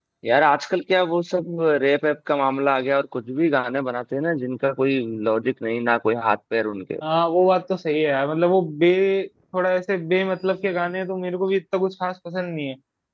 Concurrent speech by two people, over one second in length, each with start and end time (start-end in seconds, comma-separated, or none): none